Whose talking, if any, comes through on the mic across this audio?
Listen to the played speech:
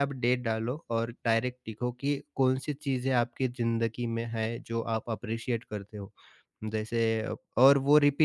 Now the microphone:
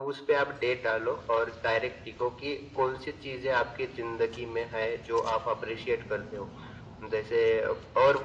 echo only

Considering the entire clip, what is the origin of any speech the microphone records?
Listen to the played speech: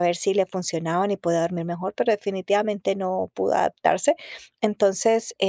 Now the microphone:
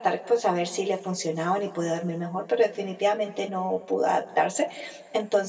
echo only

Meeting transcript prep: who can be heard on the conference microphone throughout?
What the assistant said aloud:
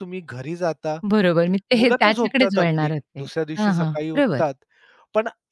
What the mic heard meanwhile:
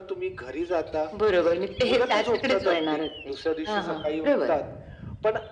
echo only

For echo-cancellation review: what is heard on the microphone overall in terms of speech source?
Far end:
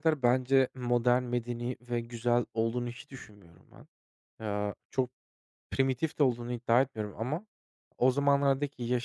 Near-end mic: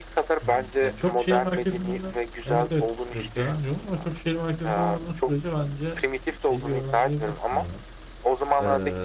both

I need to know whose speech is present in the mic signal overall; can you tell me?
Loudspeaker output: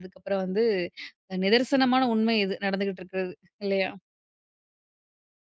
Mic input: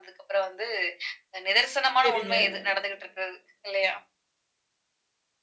both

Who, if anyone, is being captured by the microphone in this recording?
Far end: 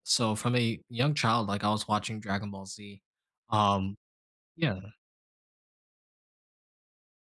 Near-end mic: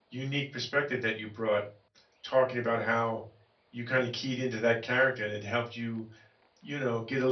user only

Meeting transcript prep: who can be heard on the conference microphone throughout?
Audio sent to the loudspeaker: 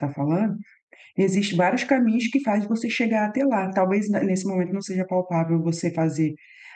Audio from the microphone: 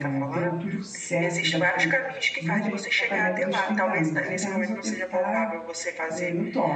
both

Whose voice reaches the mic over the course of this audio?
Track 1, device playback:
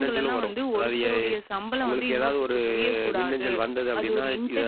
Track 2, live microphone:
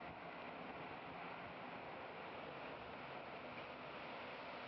neither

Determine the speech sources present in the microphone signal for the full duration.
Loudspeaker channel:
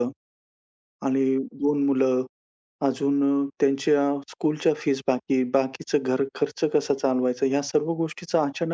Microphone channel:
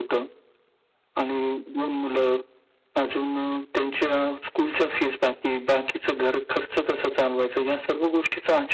echo only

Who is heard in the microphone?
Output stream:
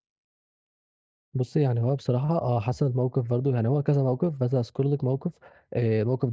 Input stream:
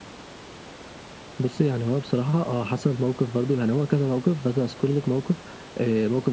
echo only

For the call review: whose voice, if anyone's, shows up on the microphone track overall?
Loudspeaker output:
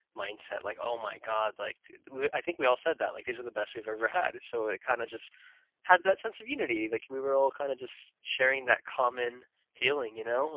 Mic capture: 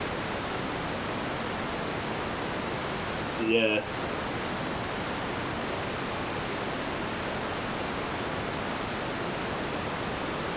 user only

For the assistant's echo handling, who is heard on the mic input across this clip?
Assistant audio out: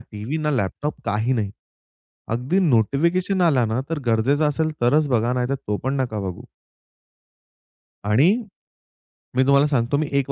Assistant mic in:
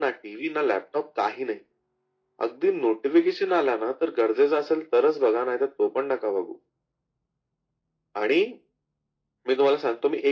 echo only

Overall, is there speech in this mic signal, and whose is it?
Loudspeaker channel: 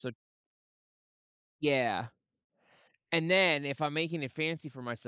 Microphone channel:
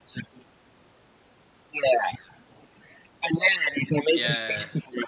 both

